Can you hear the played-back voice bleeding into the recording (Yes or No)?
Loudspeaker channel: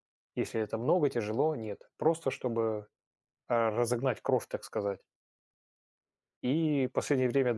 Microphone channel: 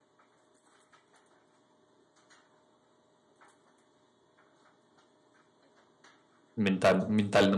No